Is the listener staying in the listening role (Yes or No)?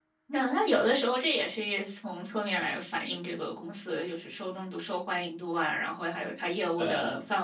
Yes